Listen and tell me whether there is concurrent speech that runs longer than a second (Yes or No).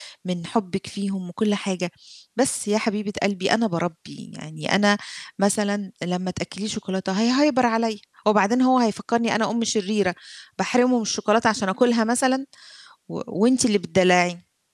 No